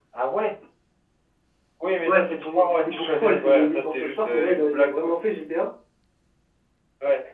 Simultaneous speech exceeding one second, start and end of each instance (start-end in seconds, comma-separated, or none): 2.0-5.1